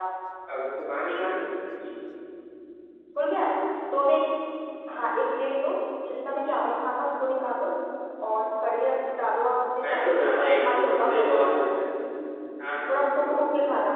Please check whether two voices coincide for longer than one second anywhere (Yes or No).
Yes